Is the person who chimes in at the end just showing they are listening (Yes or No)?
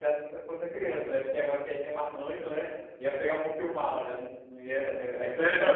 No